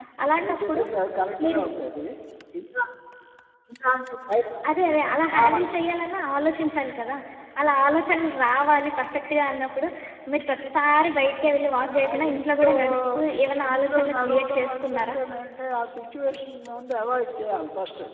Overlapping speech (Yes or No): Yes